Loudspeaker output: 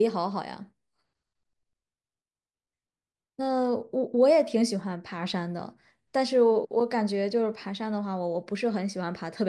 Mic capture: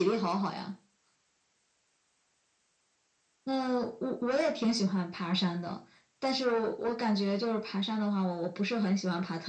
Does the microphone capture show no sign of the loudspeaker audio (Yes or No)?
No